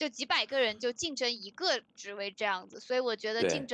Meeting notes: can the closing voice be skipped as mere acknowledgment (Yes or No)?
Yes